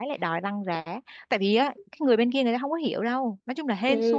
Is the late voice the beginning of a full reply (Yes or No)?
Yes